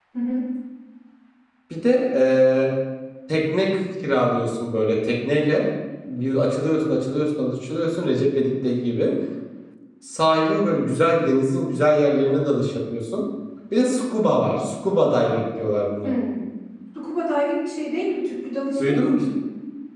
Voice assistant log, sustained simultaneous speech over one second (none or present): none